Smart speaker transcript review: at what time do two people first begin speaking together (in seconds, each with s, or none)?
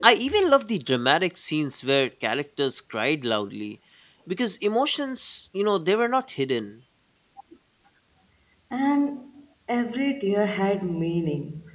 none